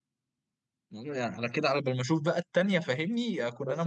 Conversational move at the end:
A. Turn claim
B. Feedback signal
A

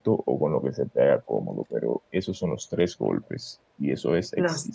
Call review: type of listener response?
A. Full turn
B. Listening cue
B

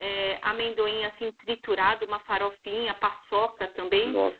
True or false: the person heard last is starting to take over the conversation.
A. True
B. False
B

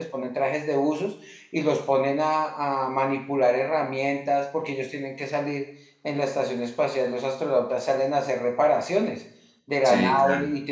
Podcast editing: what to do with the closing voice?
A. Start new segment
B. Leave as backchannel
B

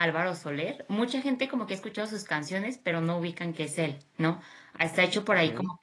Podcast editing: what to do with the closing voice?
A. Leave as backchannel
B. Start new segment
A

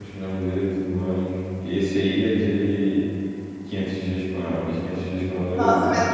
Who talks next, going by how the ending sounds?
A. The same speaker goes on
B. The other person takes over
B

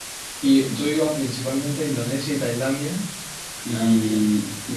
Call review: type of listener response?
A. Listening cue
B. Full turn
A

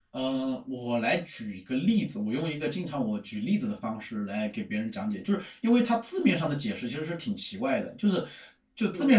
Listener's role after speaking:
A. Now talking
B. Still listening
B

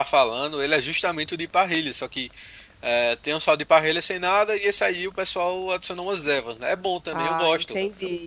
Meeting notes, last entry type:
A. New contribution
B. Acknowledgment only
A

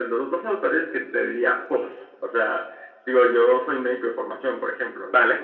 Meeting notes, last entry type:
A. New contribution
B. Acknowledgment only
B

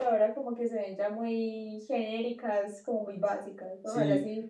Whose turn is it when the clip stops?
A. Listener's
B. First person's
A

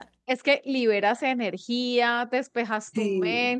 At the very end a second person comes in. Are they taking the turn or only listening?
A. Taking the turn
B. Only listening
B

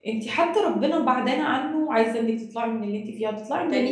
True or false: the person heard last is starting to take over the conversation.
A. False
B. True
B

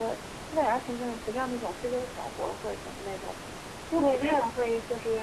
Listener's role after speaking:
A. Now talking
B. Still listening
A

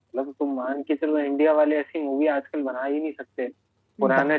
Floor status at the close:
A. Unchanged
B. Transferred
A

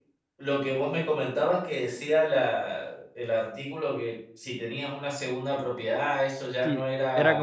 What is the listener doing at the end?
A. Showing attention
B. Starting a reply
B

